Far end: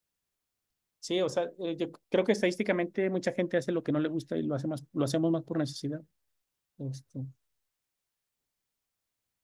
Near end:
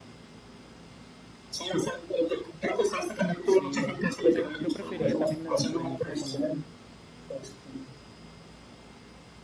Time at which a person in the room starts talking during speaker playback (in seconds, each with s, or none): 3.4 s